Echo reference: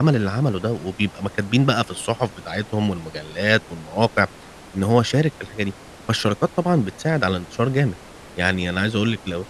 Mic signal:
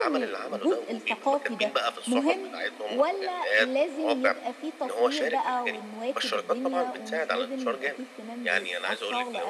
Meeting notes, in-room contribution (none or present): present